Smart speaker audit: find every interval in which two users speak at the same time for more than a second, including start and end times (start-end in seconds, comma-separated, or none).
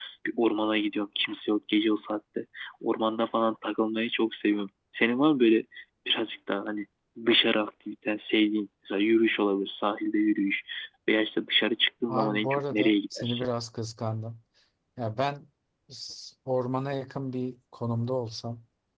12.1-13.5